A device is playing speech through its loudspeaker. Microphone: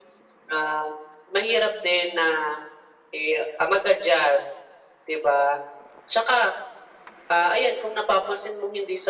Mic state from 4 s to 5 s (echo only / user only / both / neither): echo only